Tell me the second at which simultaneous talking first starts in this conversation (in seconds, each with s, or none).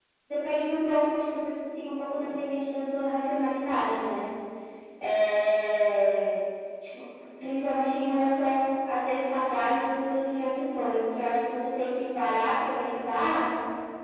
none